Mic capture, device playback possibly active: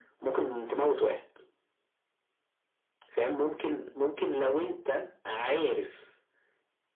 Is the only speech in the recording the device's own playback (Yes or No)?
Yes